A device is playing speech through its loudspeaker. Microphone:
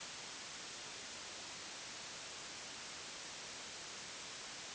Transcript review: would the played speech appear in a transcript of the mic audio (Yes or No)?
No